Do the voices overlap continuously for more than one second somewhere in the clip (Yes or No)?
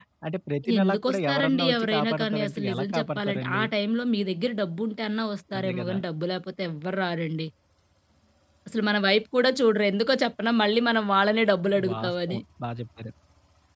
Yes